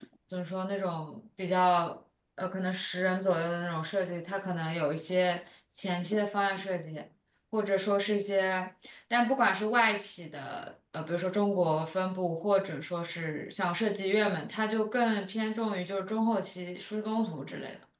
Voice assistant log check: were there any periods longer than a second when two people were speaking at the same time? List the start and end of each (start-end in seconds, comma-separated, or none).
none